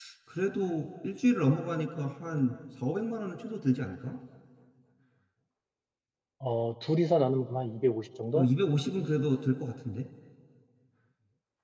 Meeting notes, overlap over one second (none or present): none